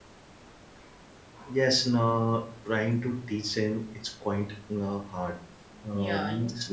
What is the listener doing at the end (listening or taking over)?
listening